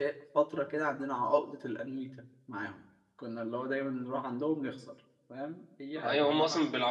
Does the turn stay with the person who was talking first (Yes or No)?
No